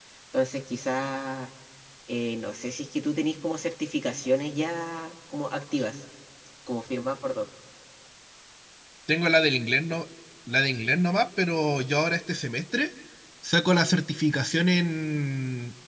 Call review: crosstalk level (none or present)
none